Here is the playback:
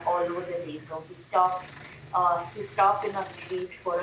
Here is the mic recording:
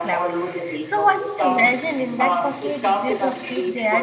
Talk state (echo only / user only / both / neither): both